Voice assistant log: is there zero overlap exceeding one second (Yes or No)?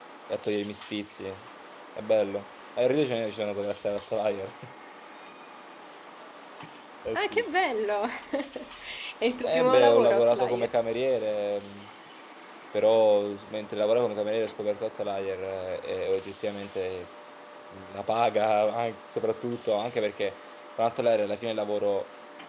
No